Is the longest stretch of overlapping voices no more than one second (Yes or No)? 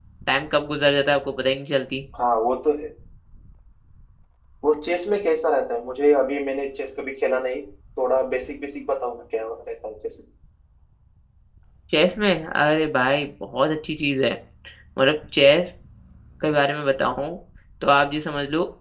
Yes